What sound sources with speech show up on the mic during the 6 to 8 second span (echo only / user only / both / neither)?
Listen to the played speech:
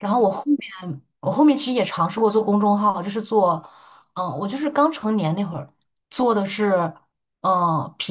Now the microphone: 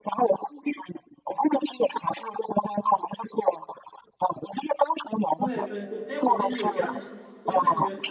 both